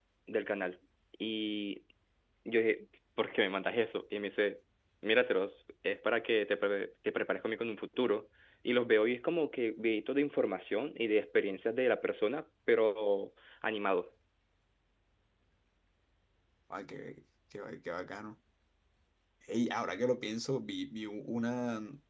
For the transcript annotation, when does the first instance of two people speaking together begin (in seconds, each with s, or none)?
none